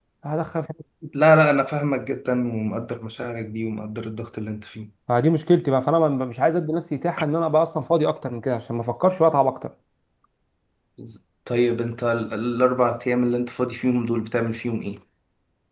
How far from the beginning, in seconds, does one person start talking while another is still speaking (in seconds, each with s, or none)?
none